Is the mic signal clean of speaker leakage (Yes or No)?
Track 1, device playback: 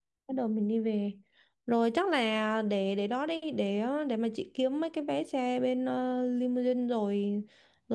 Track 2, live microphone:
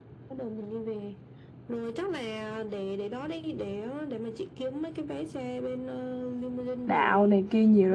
No